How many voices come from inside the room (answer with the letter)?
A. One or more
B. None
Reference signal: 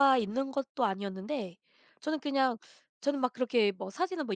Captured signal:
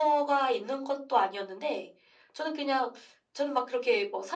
B